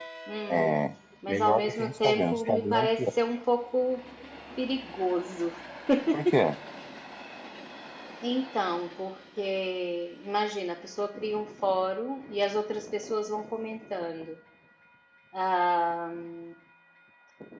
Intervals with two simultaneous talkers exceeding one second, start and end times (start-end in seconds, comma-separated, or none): 1.3-3.1